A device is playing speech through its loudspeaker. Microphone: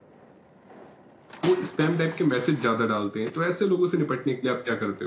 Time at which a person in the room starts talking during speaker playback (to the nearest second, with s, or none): 1 s